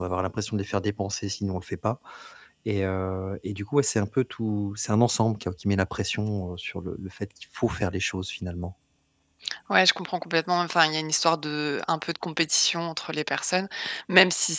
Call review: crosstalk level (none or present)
none